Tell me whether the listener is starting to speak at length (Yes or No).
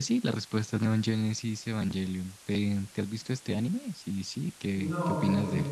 Yes